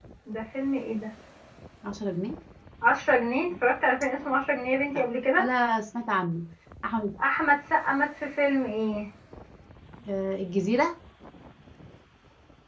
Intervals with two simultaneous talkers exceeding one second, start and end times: none

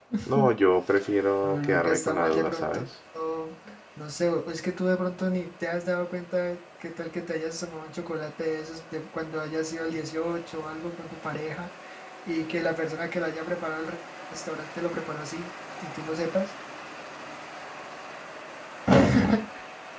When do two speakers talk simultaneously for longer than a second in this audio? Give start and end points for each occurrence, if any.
1.4-2.8

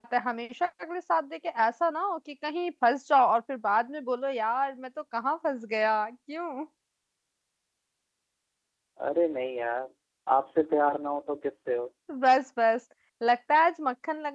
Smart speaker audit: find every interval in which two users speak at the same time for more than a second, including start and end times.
none

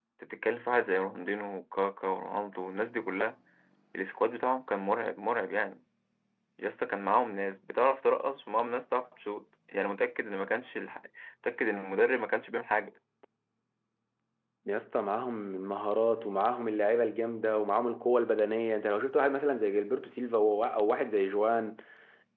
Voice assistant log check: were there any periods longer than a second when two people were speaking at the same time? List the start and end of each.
none

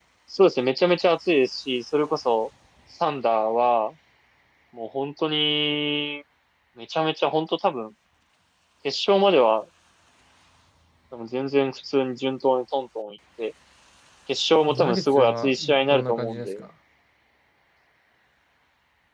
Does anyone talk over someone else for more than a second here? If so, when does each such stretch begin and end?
14.7-16.5

